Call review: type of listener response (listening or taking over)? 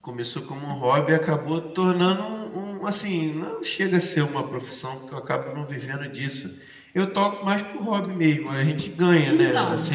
listening